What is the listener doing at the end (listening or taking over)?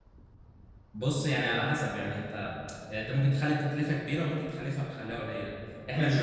taking over